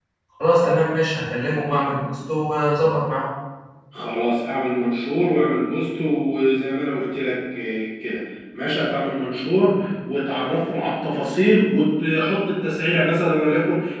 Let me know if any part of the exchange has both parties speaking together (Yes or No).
No